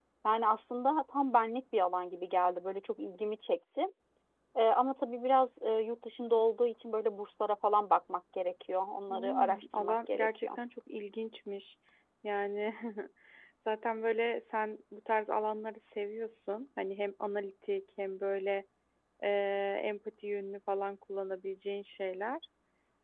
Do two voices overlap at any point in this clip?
Yes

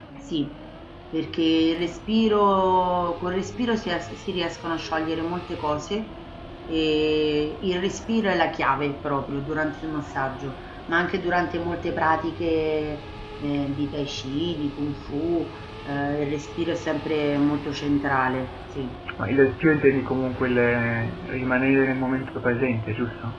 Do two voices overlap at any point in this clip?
No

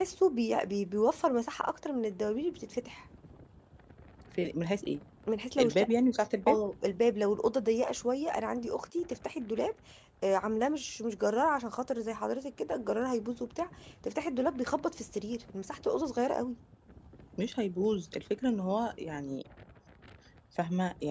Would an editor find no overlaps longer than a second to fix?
Yes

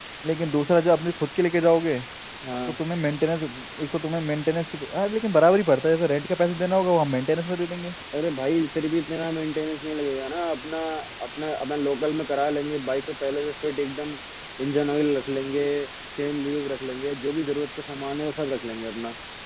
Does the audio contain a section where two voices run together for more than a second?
No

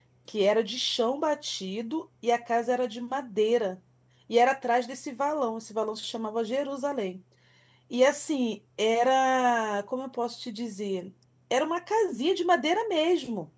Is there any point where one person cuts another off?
No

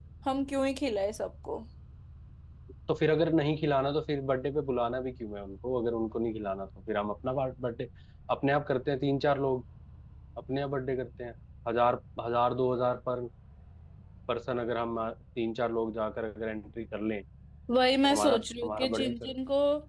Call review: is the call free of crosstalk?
No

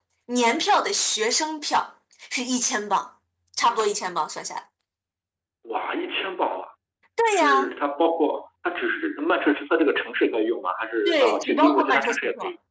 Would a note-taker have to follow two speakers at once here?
Yes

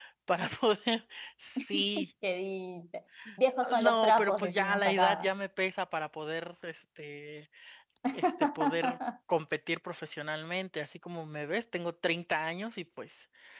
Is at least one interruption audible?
Yes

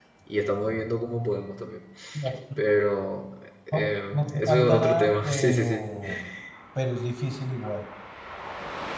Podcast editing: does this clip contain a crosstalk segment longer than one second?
Yes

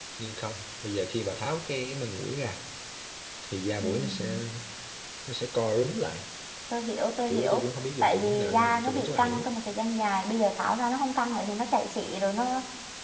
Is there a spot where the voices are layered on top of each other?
Yes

